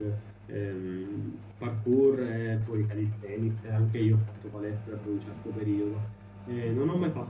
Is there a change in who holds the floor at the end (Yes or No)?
No